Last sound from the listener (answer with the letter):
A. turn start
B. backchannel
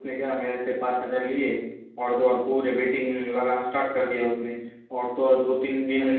B